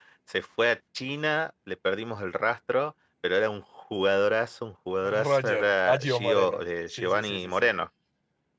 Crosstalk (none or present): present